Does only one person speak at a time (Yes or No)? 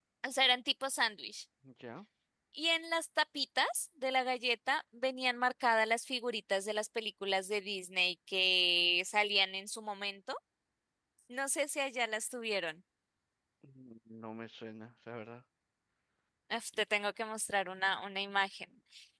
Yes